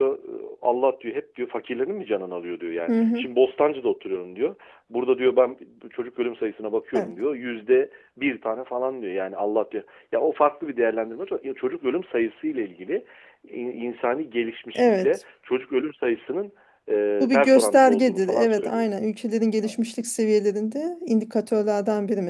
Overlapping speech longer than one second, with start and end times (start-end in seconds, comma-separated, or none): 17.2-18.8